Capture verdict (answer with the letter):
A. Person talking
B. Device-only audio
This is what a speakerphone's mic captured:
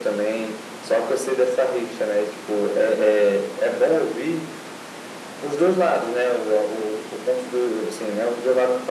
B